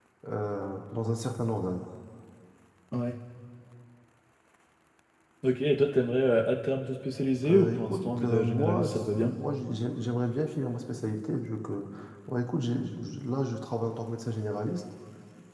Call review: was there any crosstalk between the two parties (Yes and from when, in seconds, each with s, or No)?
Yes, from 7.4 s